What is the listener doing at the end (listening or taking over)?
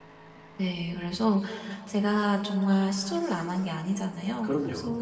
listening